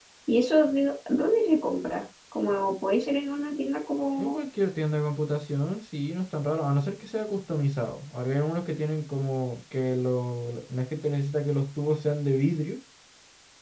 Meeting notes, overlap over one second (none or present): none